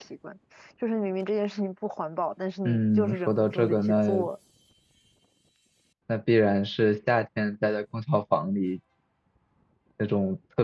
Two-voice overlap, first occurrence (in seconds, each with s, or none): 2.6 s